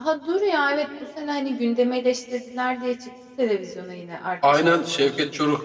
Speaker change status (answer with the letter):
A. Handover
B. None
A